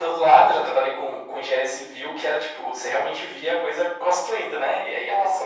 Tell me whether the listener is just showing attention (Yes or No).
Yes